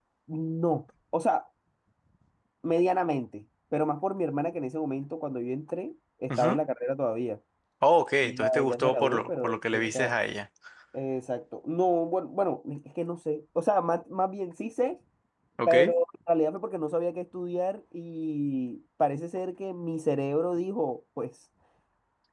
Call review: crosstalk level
present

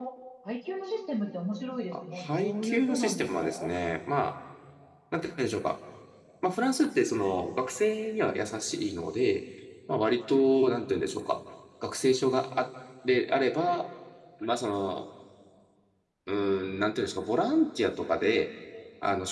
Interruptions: present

